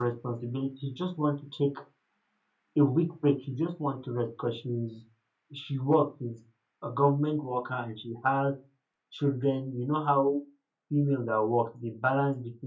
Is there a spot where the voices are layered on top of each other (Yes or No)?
No